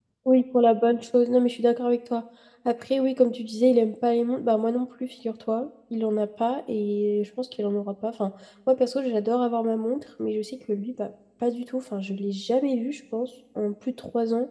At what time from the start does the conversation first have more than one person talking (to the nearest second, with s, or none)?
none